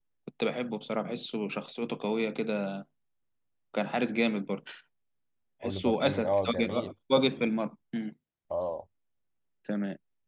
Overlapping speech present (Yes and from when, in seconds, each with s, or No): Yes, from 5.6 s